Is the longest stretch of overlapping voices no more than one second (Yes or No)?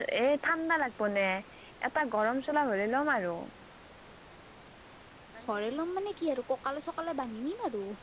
Yes